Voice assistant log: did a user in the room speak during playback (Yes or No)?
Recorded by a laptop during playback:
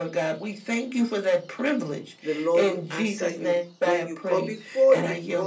Yes